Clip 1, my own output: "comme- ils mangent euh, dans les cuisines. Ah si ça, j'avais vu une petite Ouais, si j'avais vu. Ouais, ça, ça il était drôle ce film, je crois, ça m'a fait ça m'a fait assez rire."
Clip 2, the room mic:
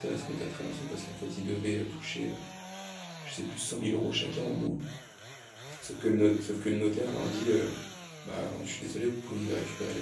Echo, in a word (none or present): none